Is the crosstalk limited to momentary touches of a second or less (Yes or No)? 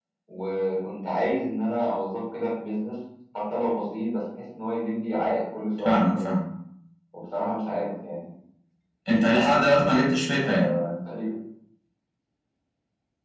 Yes